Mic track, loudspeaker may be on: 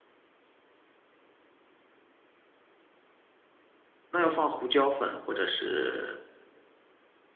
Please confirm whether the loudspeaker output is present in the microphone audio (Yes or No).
No